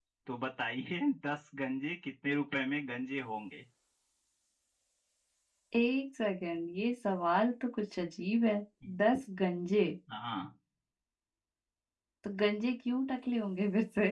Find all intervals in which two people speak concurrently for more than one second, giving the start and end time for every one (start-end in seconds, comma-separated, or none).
none